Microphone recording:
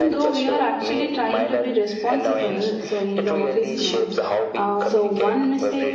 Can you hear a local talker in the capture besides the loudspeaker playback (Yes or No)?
Yes